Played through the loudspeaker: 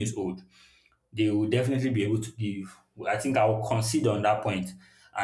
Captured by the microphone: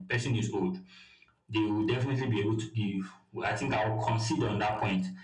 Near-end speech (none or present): none